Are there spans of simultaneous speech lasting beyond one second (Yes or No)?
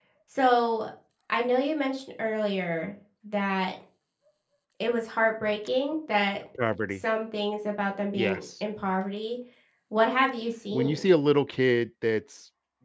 No